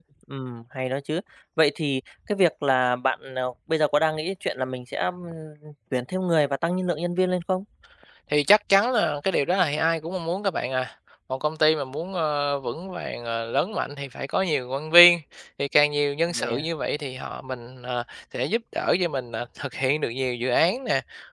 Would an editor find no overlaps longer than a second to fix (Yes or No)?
Yes